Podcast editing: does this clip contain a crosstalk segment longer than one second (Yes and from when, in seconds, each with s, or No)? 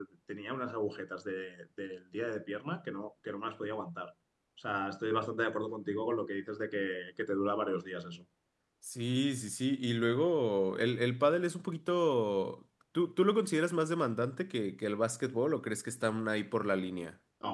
No